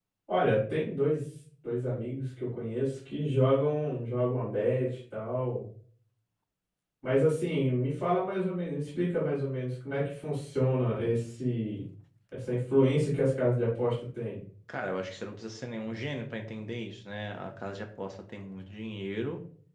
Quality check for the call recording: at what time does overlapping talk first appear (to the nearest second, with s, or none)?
none